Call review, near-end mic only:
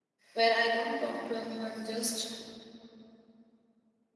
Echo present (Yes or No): No